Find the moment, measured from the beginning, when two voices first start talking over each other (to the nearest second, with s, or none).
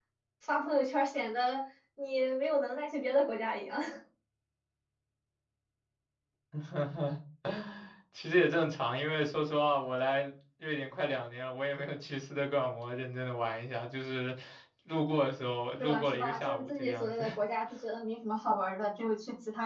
16 s